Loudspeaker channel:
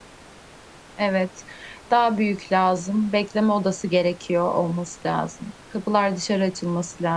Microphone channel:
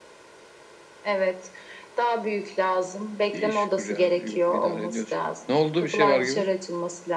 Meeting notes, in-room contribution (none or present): present